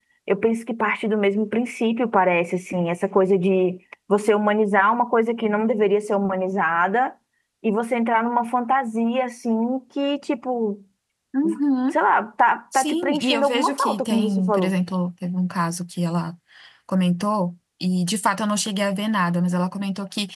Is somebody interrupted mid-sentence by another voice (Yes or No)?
Yes